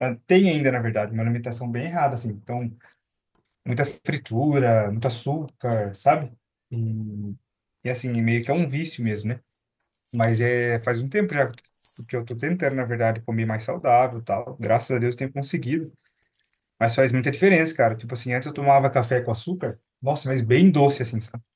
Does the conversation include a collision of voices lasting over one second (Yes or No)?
No